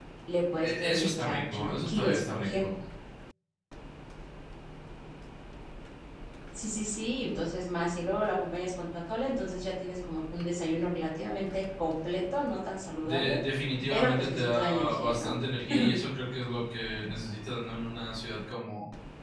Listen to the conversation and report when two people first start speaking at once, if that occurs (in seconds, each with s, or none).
0.6 s